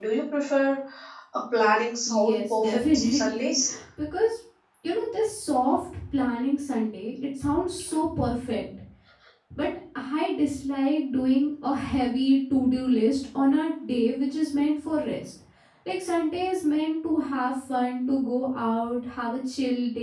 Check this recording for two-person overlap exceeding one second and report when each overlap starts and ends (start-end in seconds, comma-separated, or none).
2.0-3.5